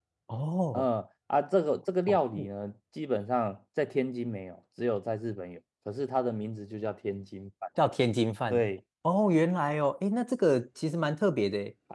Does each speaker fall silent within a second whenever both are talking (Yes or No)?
Yes